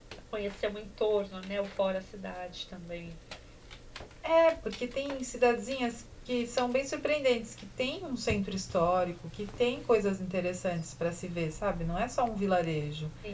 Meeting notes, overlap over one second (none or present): none